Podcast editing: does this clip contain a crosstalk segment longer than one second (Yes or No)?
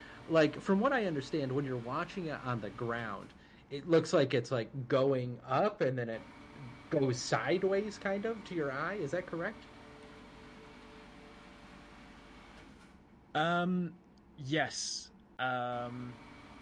No